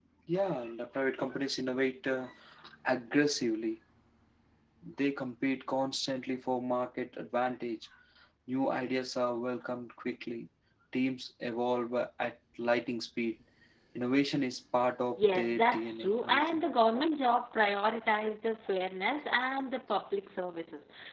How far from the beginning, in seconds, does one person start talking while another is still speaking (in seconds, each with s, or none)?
15.2 s